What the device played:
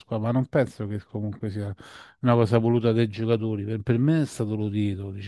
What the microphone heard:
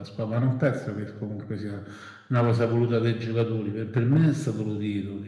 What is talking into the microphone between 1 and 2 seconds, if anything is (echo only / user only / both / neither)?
echo only